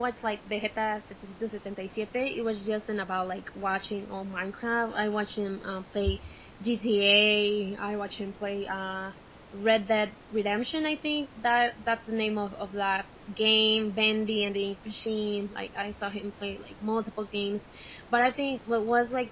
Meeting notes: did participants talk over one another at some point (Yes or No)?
No